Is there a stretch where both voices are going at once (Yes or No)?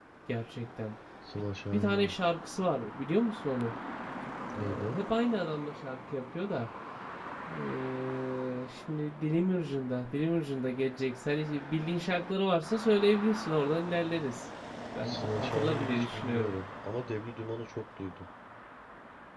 Yes